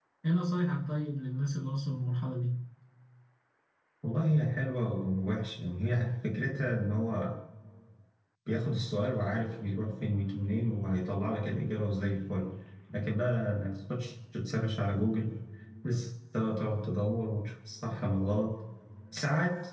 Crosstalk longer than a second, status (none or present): none